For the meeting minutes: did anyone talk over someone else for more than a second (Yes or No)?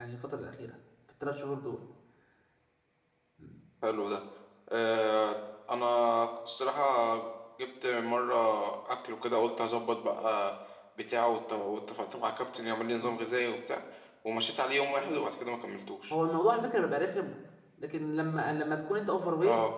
No